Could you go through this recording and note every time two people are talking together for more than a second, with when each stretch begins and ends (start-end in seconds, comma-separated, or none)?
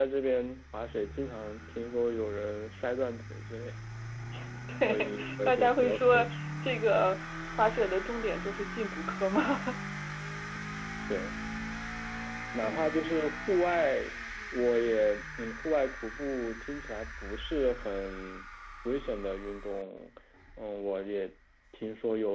4.9-6.4